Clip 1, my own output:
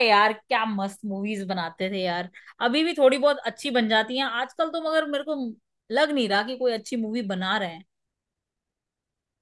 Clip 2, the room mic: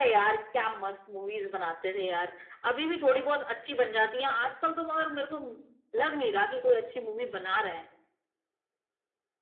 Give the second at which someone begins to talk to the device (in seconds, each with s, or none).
none